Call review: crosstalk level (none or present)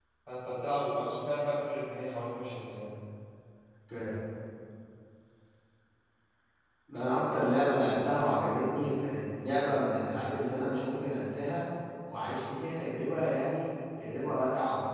none